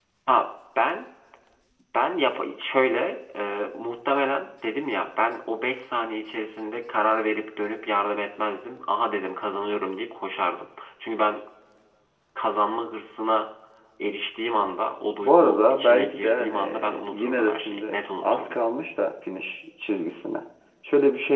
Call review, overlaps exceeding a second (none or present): present